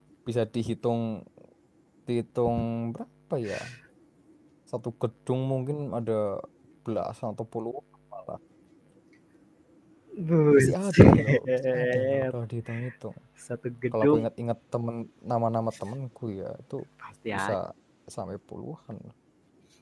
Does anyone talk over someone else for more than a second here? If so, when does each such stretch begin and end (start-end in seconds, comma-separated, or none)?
10.6-12.3